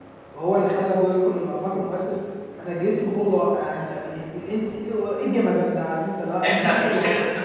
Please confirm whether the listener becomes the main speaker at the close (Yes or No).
Yes